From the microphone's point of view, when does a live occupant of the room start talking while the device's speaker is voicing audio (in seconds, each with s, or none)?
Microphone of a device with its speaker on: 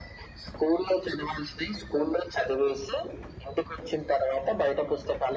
none